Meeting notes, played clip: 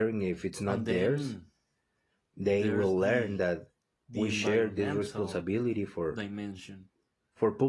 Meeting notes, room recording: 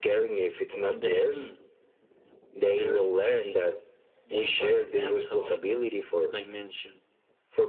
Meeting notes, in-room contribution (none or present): none